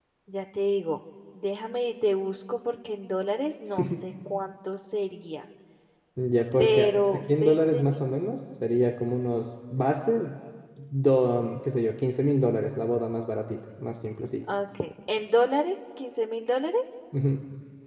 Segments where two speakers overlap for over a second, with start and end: 6.6-8.0

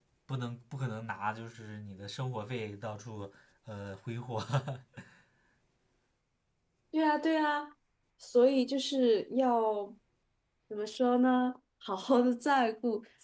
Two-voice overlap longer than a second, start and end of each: none

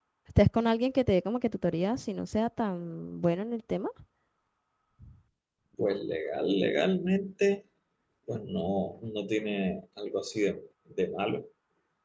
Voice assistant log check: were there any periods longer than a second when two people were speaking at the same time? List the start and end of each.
none

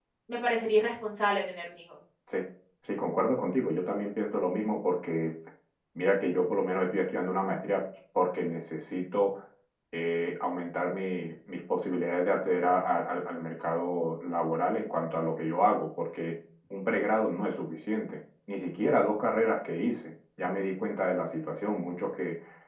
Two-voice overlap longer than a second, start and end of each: none

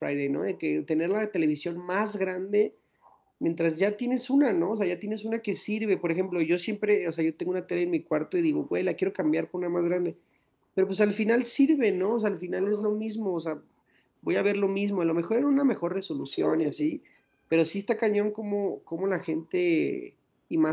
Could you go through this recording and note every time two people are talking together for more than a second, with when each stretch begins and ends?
none

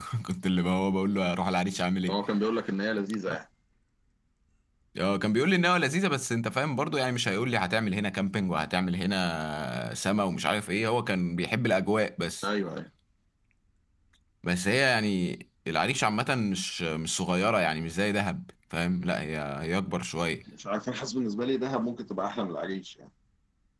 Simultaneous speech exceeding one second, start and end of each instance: none

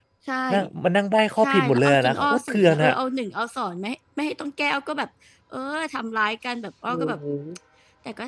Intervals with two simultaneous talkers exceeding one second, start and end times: 1.4-2.9

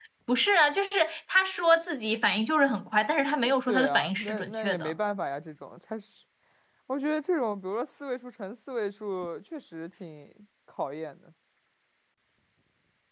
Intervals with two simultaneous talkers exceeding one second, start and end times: 3.7-4.9

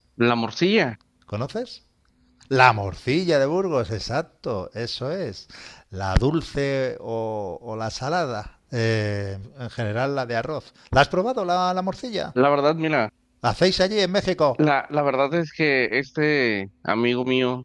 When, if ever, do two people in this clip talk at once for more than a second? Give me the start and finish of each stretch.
none

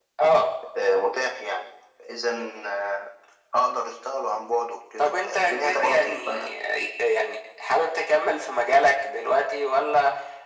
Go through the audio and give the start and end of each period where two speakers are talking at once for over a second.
5.0-6.5

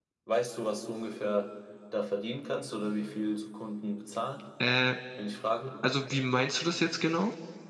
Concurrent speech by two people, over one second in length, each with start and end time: none

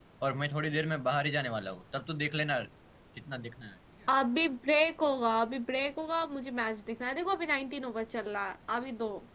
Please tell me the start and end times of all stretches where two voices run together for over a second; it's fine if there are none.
none

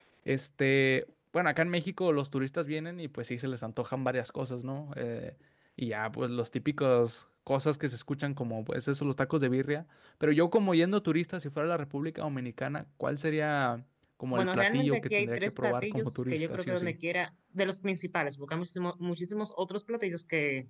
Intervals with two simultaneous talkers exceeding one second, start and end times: 14.3-16.9

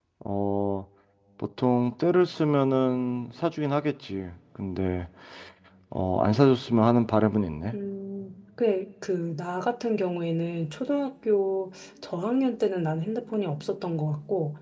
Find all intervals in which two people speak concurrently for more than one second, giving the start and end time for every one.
none

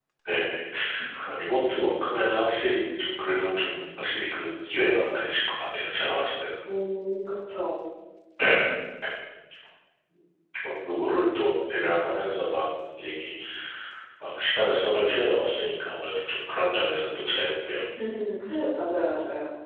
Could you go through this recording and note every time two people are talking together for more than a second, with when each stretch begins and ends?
none

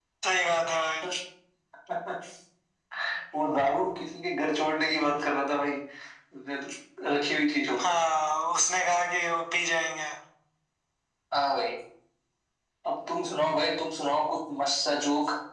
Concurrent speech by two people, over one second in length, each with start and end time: none

